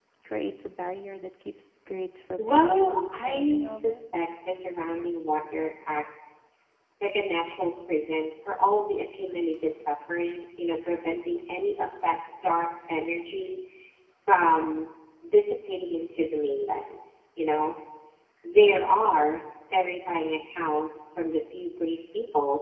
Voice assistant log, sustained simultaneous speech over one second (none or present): present